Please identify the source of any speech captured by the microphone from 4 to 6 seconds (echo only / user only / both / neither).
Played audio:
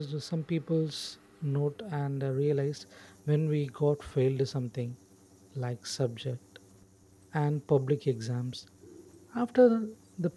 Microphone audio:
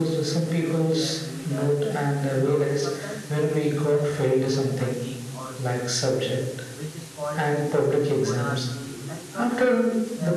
both